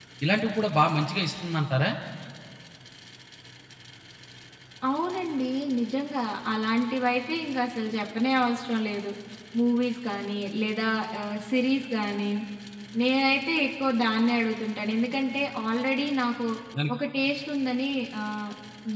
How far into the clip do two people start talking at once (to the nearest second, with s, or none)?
none